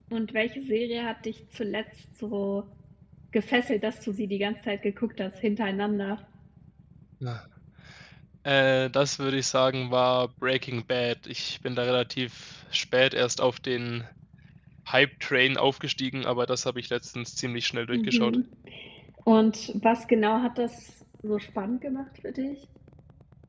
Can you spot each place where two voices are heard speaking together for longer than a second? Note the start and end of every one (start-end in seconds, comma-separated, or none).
none